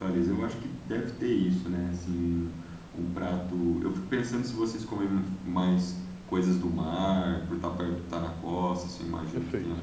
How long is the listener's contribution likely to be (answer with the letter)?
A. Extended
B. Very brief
B